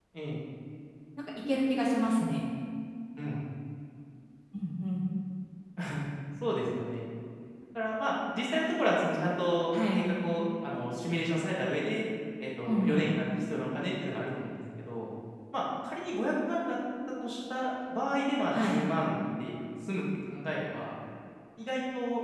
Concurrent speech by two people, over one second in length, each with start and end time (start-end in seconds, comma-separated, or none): none